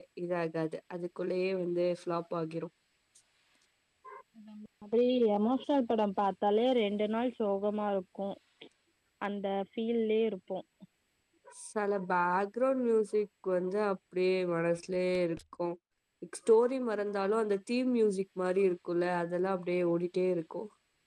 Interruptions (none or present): none